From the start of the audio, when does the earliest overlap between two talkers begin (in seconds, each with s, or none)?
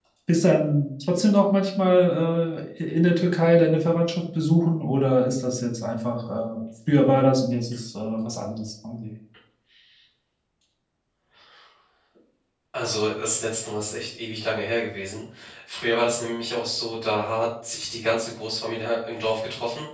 none